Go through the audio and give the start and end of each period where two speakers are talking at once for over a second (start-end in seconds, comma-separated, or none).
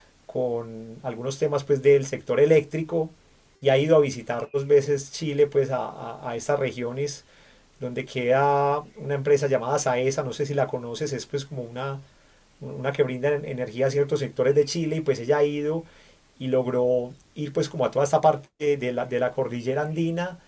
none